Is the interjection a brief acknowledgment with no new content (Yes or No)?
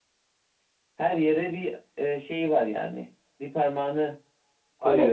No